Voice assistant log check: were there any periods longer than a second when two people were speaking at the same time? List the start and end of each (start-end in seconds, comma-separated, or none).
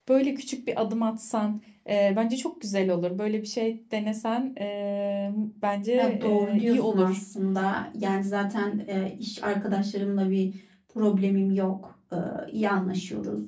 6.0-7.2